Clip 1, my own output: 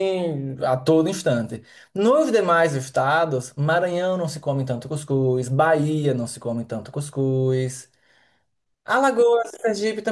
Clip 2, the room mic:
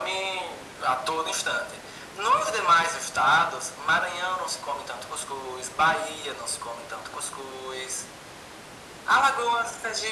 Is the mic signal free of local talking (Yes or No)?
Yes